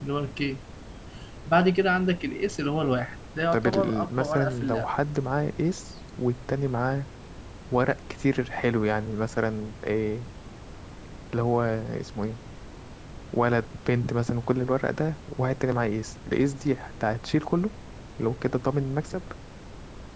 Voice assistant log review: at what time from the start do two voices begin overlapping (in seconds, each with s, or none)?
3.5 s